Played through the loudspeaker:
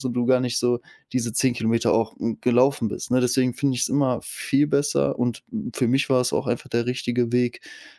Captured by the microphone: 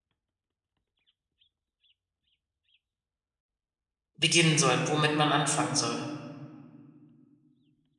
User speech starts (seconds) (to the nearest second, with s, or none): 4 s